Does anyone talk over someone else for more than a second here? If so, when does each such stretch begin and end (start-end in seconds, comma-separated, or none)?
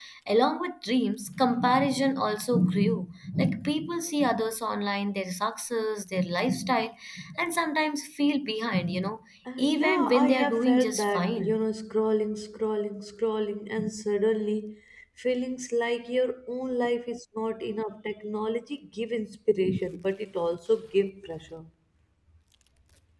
9.6-11.6